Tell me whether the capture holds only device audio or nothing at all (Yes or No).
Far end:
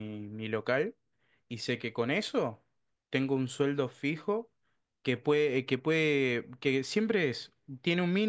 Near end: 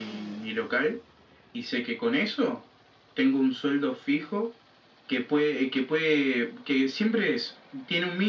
Yes